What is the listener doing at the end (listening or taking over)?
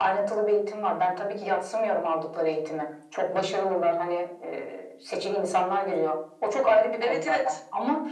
listening